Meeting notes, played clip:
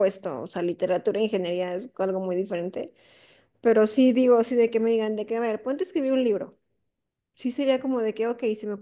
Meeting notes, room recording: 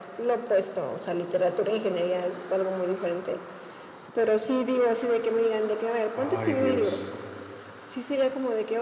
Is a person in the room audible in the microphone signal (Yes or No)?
Yes